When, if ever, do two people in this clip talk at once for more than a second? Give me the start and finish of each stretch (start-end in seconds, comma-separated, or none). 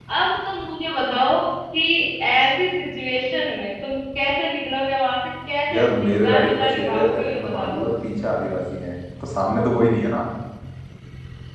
5.7-8.0